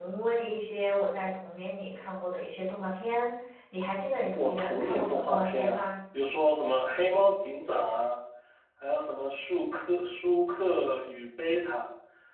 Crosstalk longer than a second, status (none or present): present